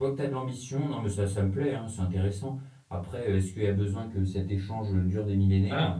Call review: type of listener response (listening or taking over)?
taking over